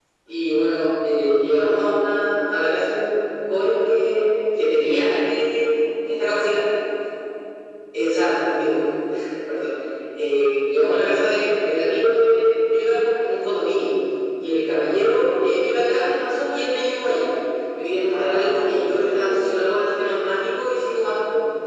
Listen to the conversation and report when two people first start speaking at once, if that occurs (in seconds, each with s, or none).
18.1 s